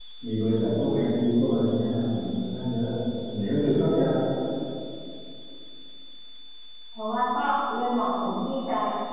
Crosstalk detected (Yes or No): No